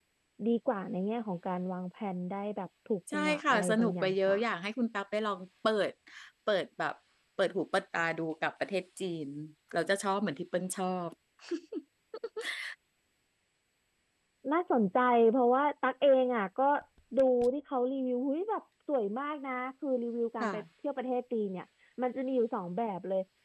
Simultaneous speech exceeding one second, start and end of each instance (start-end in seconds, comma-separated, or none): 3.1-4.4